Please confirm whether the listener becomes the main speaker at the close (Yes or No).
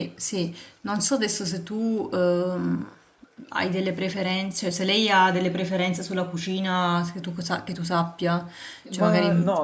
Yes